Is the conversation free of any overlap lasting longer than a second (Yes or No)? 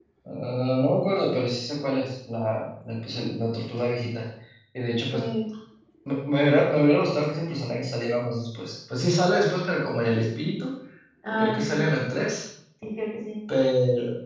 Yes